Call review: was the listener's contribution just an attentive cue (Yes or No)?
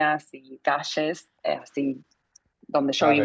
No